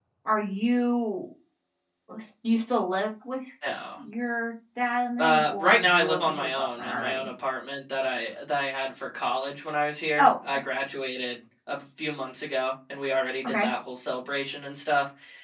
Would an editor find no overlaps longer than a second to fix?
No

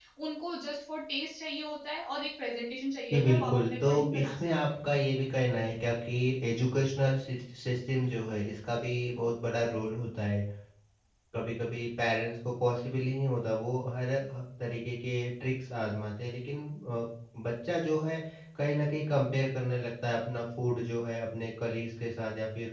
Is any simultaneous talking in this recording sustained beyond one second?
Yes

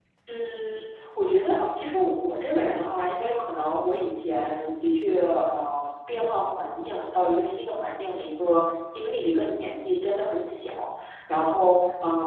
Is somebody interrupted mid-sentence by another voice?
No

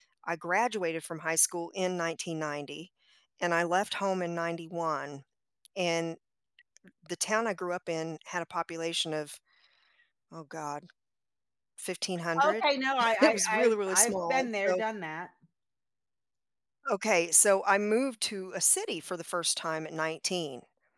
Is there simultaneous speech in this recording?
Yes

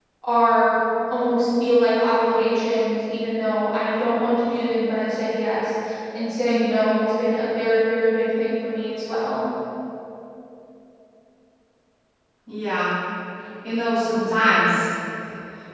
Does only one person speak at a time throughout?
Yes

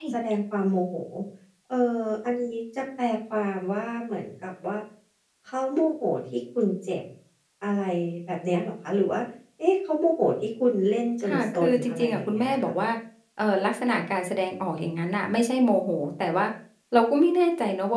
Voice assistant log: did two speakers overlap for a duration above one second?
Yes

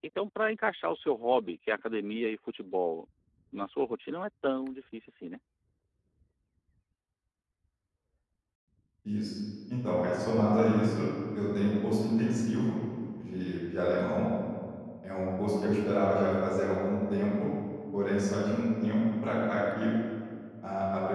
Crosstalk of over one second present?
No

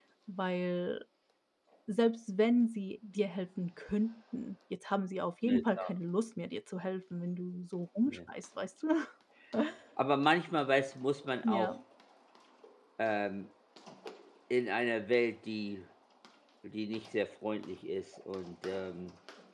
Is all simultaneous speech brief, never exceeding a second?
Yes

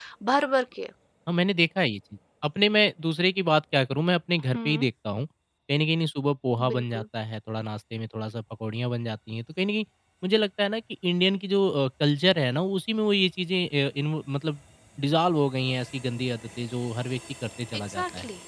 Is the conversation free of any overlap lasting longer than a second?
Yes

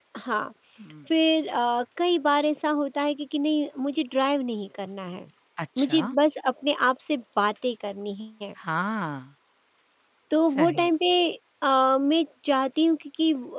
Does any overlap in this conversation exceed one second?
No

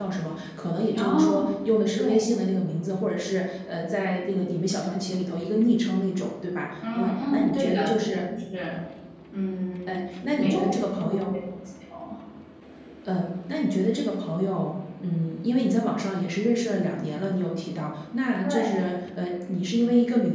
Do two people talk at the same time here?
Yes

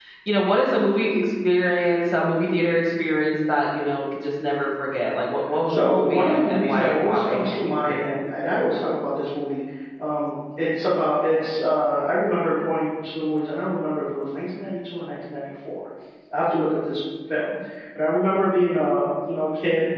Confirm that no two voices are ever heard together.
No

